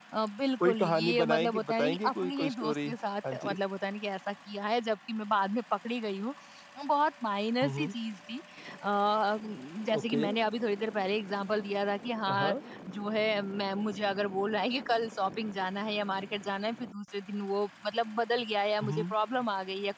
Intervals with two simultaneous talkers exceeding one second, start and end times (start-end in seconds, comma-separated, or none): 0.6-2.9